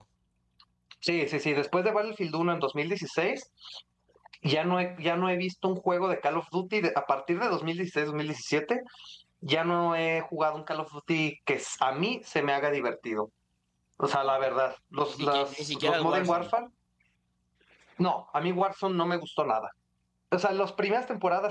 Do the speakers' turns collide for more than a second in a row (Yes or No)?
Yes